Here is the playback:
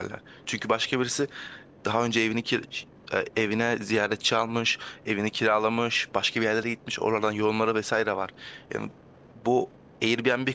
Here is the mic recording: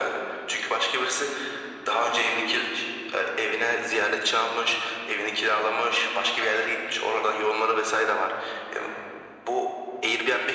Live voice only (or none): none